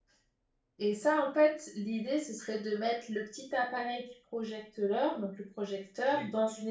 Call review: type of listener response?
listening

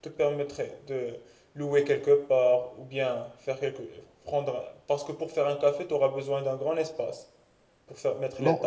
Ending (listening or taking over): taking over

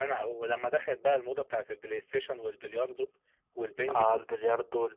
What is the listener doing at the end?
taking over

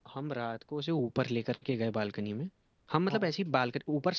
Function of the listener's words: listening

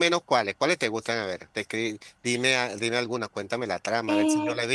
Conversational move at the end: taking over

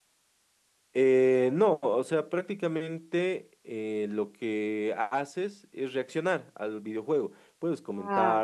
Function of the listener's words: listening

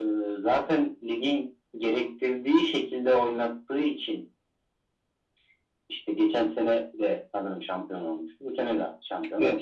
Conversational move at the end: taking over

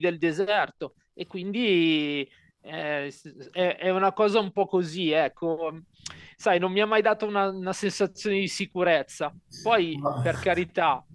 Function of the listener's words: listening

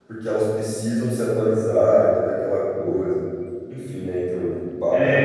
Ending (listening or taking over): taking over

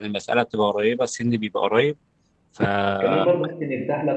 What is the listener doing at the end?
taking over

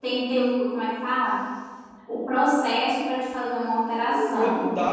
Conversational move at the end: taking over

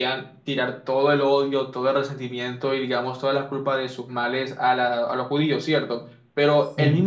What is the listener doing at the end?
listening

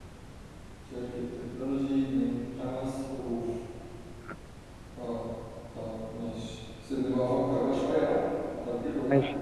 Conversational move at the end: taking over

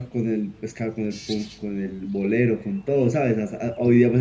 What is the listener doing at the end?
listening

